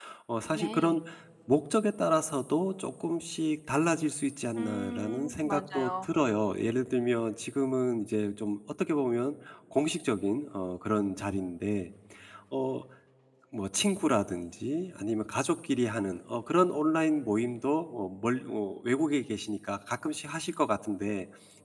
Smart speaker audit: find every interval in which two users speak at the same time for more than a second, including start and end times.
4.6-6.0

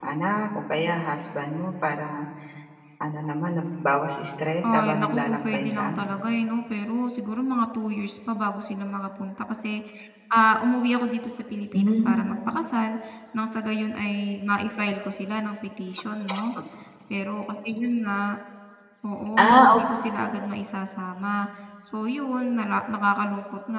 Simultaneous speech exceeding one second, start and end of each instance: 4.7-6.0

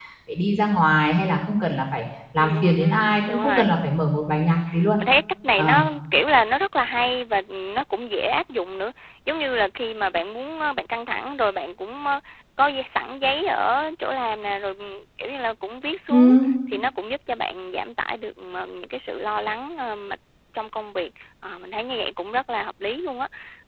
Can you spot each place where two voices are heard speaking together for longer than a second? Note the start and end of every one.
2.4-3.7

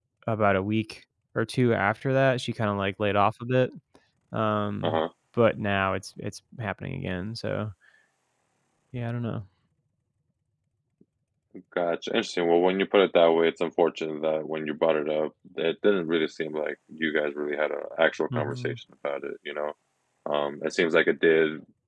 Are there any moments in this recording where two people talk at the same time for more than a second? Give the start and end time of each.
none

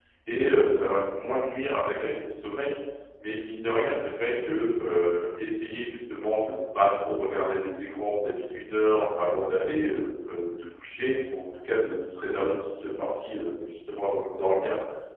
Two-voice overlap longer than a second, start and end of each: none

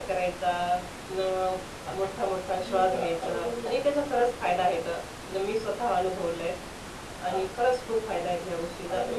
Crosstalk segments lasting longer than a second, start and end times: 2.6-3.8

